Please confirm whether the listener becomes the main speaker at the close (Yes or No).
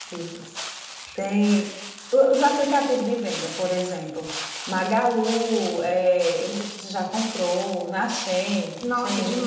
Yes